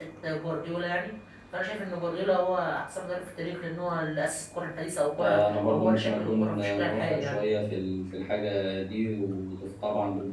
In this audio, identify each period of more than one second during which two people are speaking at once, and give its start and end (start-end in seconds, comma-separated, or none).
5.2-7.4